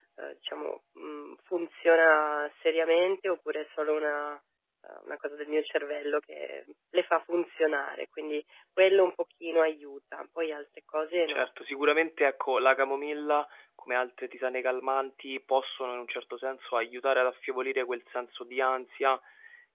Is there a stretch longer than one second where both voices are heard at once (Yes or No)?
No